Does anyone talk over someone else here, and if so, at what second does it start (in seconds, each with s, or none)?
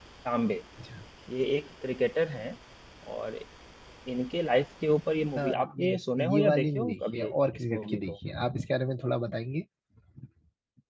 5.4 s